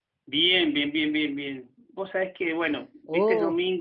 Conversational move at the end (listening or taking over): listening